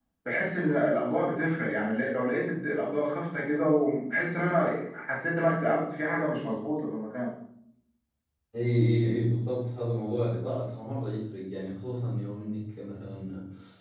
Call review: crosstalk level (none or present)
none